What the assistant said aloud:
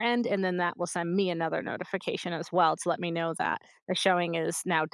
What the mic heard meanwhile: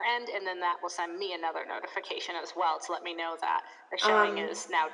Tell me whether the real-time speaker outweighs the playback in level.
Yes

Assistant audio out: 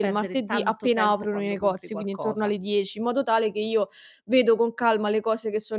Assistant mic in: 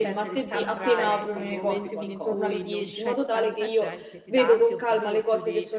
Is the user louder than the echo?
No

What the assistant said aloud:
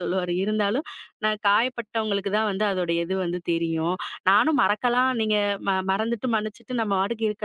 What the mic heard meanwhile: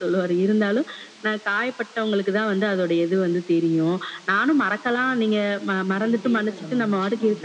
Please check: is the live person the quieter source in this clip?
Yes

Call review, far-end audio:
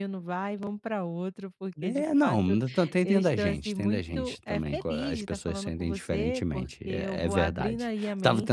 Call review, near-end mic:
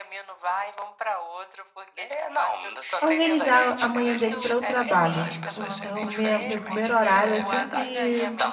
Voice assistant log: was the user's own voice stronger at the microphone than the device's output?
Yes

